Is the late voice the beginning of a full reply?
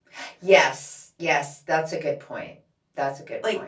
Yes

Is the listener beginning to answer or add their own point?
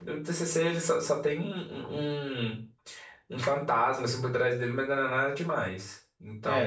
Yes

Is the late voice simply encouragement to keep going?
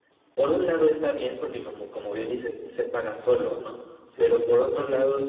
Yes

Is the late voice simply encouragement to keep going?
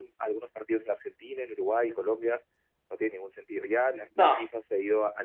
Yes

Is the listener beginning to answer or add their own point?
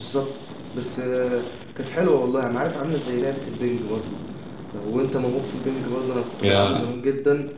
No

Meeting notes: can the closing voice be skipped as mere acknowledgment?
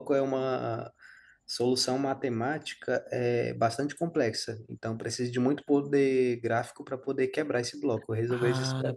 No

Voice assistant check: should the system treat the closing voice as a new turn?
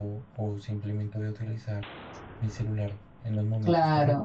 Yes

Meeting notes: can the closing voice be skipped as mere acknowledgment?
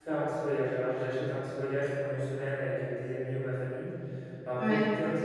Yes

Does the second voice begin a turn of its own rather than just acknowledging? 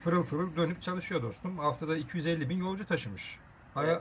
No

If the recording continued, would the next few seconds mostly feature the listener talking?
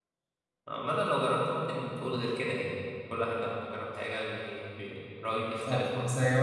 Yes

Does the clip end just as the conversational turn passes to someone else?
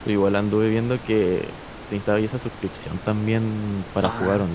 Yes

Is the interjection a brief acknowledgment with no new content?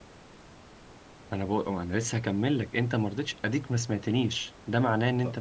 Yes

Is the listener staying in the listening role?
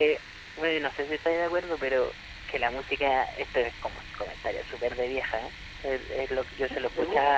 Yes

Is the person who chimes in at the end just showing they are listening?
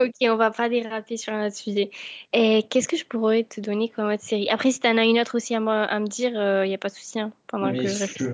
No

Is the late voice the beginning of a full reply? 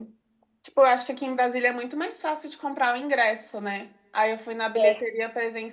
No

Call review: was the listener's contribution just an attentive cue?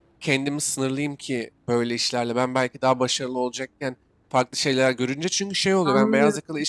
Yes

